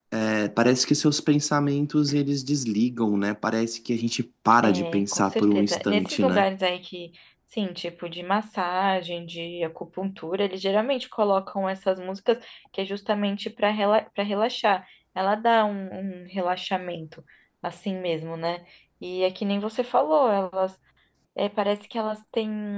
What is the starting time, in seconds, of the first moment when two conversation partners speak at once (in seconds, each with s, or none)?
4.6 s